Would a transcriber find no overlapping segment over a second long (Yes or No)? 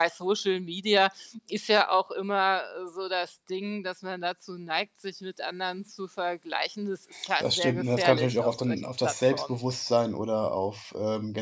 No